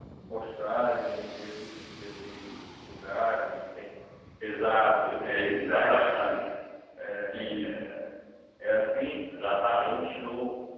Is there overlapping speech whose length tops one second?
Yes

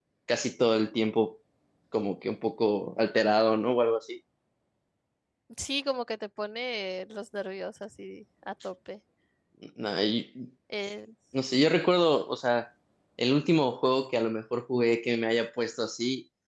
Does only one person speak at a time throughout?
Yes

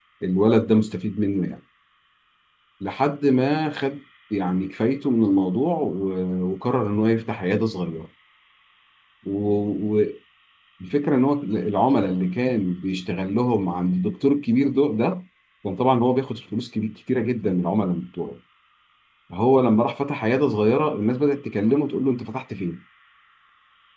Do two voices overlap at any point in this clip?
No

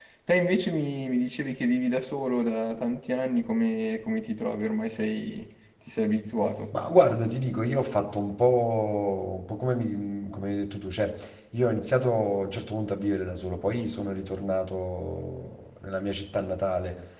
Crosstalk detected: No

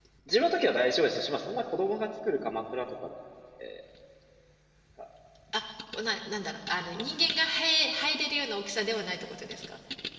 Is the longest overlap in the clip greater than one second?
No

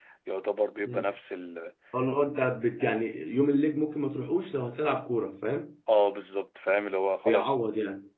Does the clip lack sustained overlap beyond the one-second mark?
Yes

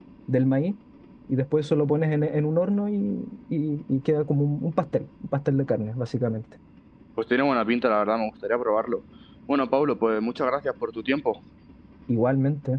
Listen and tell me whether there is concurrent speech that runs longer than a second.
No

